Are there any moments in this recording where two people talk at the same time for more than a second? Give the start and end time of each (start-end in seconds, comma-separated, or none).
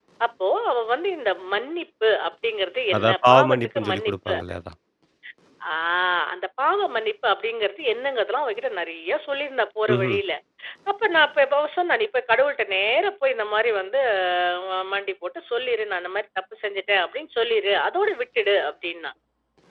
3.0-4.3